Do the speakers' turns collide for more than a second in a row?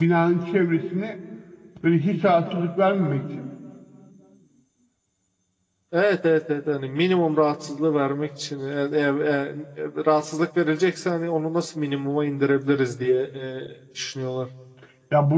No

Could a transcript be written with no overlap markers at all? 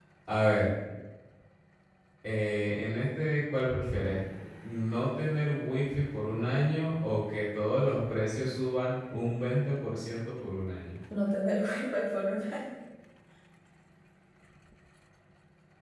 Yes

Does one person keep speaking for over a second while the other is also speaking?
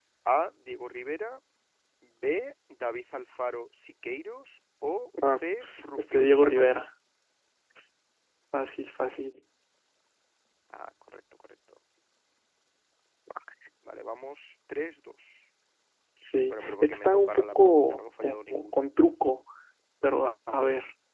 Yes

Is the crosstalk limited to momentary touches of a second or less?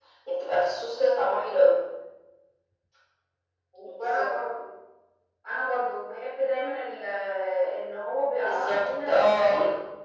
No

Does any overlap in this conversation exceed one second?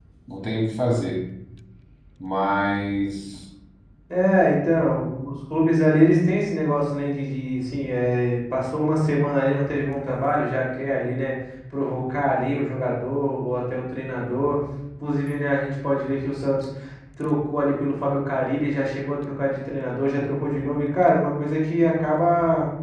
No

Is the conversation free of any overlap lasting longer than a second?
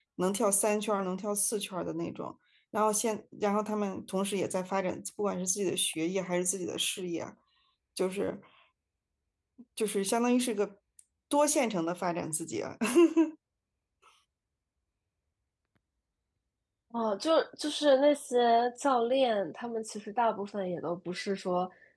Yes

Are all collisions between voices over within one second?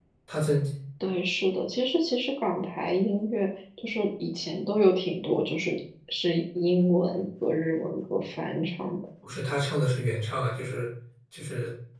Yes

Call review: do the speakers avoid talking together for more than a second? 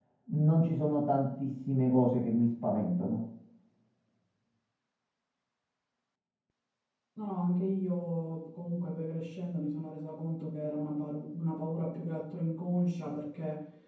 Yes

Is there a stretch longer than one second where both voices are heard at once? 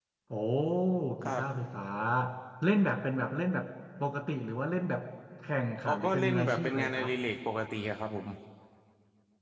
Yes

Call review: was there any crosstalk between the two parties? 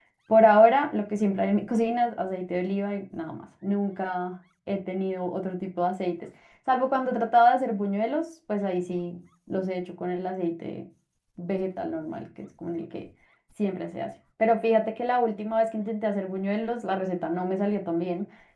No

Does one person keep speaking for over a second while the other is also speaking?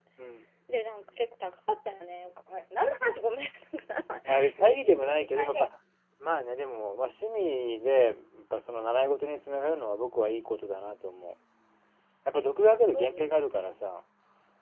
Yes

